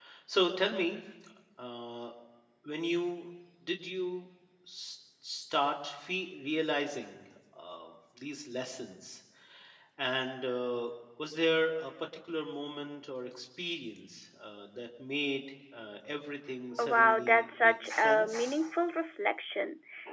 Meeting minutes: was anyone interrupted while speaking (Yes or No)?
Yes